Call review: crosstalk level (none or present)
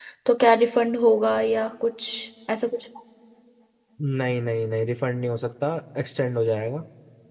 none